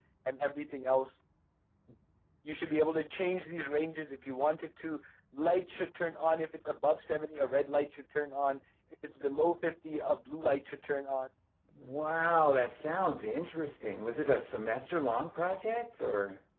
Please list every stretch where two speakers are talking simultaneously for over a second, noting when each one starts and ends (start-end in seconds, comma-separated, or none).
none